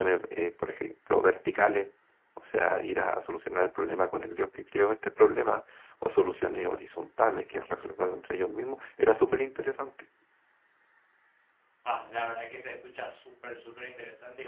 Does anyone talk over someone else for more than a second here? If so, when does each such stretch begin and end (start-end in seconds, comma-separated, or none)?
none